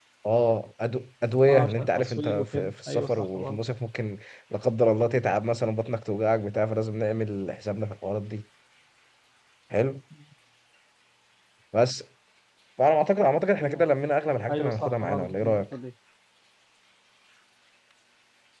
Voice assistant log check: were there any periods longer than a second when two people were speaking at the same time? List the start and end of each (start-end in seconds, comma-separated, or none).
1.4-3.6, 14.5-15.8